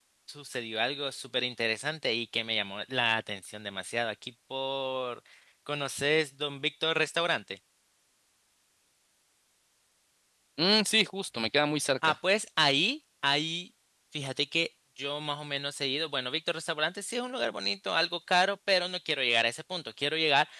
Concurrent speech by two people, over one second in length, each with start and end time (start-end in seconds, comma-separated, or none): none